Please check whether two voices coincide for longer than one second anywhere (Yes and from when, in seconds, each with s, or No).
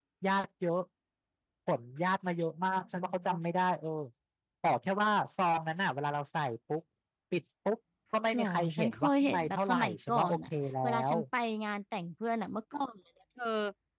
Yes, from 8.3 s